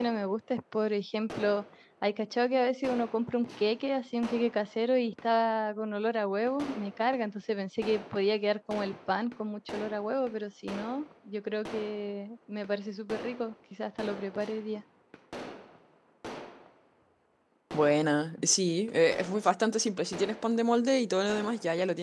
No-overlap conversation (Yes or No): Yes